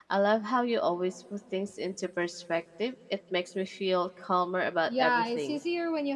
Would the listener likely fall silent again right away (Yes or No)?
No